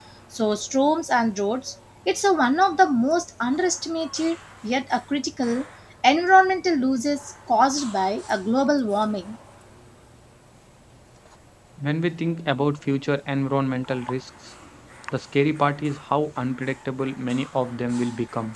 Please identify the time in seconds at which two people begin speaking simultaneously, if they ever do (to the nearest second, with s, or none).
none